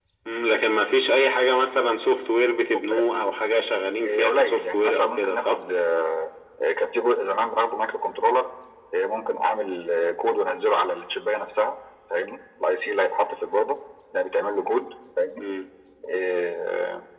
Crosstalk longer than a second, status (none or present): present